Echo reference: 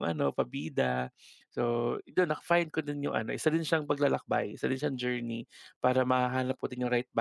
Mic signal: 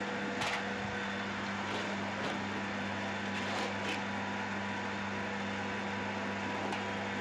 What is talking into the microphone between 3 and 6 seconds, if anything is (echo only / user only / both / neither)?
neither